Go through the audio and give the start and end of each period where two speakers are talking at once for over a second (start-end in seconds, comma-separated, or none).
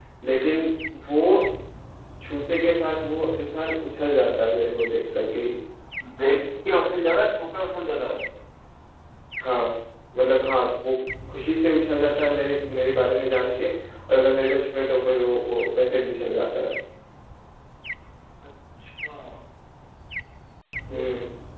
none